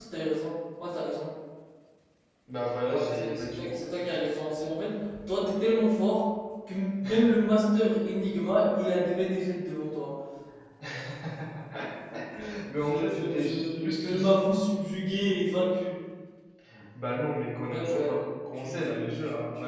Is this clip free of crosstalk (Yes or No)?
No